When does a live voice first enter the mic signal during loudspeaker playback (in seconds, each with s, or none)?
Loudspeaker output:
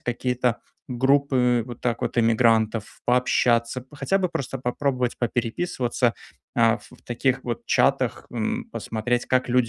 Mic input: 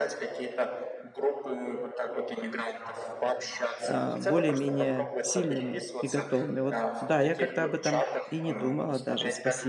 3.8 s